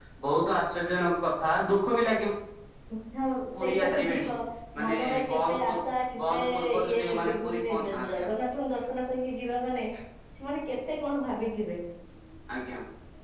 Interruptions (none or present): present